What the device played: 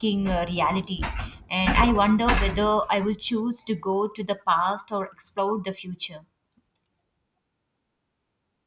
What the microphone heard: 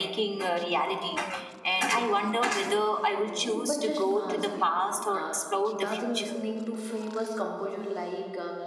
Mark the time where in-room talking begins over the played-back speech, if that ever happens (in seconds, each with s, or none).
3.1 s